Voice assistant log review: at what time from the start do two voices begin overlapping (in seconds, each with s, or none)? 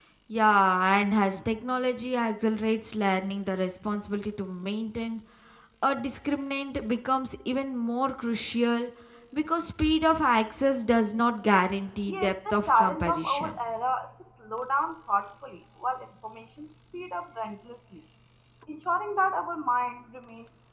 12.1 s